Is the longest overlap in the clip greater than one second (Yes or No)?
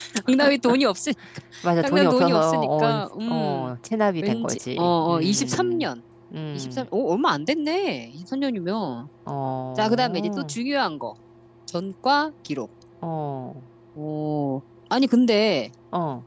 Yes